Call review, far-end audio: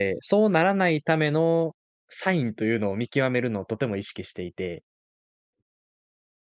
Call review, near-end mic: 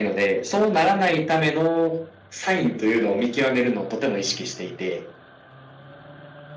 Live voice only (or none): none